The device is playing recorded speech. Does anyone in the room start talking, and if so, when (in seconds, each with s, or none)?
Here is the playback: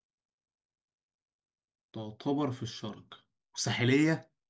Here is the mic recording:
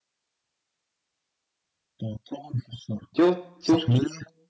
3.2 s